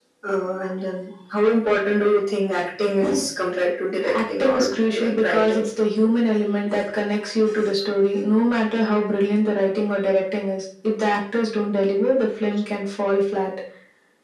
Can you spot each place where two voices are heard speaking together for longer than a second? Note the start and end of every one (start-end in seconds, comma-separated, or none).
4.1-5.7